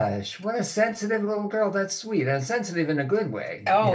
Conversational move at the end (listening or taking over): taking over